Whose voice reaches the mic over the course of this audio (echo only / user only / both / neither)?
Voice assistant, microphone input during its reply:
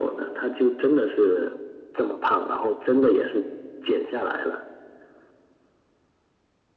echo only